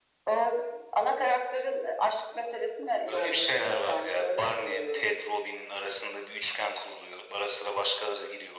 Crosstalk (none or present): present